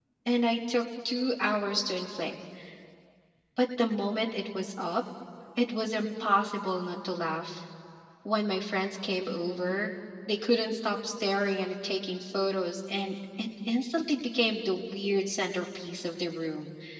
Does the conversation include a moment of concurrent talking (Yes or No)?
No